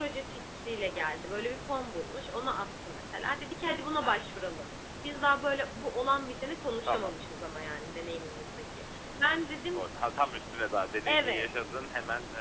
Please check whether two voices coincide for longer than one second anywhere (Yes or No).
No